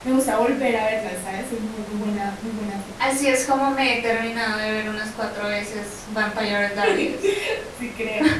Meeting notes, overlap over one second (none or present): none